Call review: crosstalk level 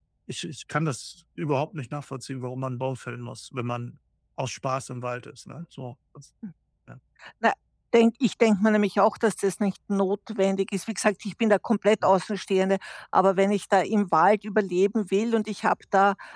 none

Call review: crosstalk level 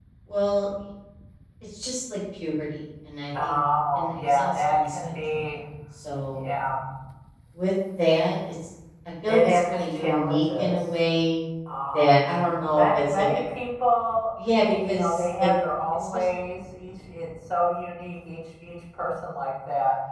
present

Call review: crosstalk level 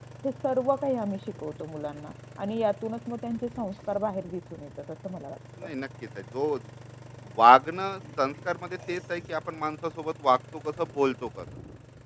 none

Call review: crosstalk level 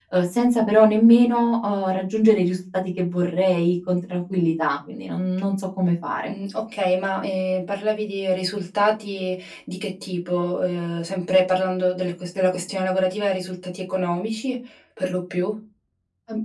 none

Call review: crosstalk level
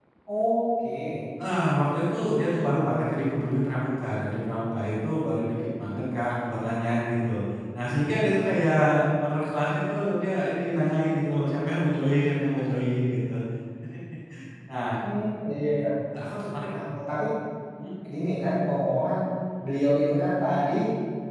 none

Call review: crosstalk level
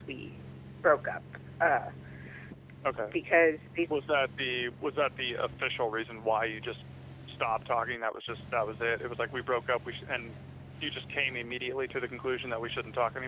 none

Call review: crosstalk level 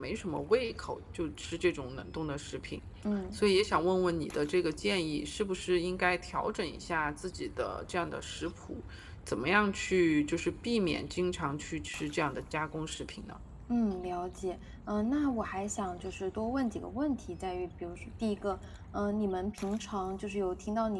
none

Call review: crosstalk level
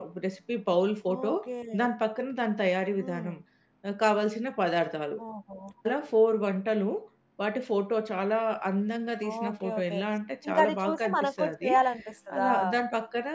present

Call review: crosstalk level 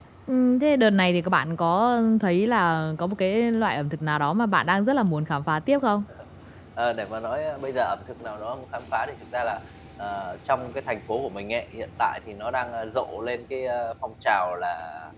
none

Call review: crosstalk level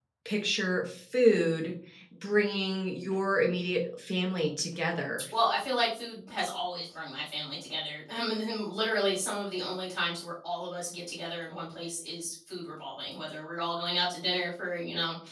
none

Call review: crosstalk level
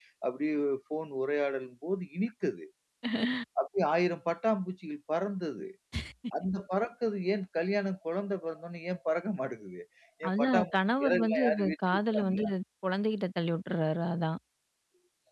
present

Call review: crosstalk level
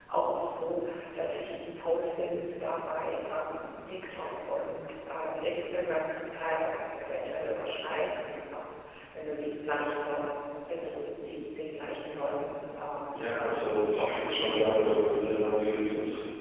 present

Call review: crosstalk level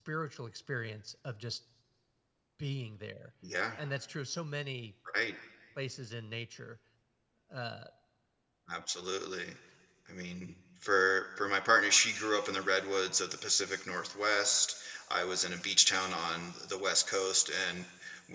none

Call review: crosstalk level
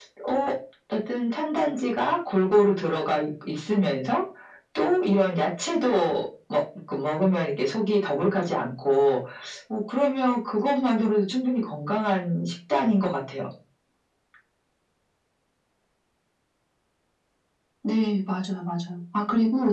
none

